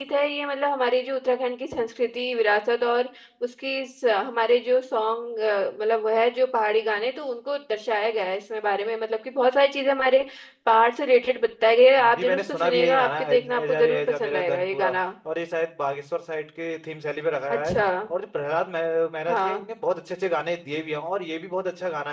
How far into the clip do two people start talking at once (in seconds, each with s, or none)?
12.0 s